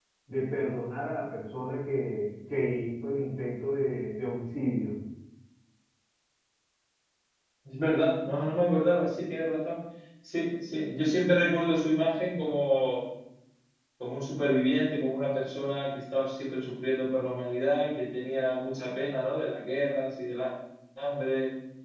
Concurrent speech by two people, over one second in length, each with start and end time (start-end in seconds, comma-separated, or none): none